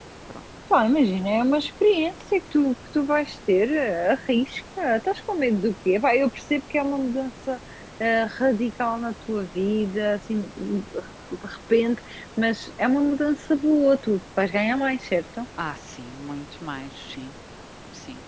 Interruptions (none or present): none